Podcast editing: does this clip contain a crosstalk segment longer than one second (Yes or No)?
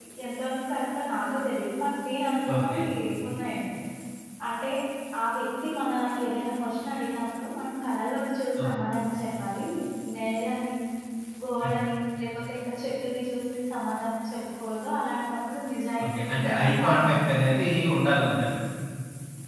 Yes